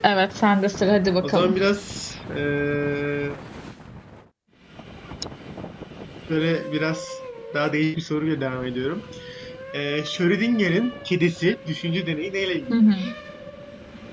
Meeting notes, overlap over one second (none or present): none